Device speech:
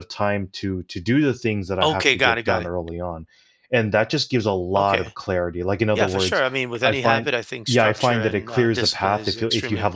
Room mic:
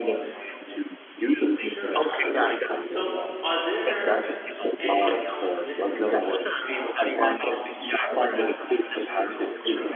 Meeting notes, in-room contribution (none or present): present